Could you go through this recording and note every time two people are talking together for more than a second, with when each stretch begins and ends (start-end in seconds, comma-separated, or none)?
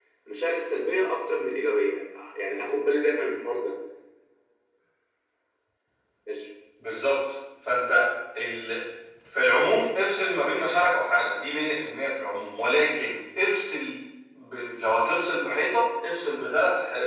none